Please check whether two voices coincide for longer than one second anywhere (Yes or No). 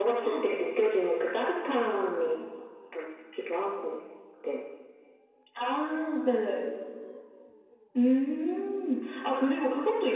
No